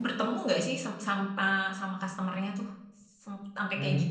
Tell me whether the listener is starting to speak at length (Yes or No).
Yes